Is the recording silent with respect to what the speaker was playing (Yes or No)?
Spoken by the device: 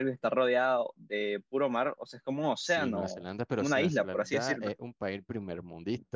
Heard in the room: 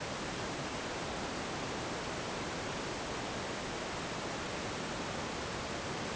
Yes